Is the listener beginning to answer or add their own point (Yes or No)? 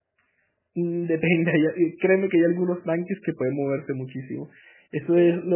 No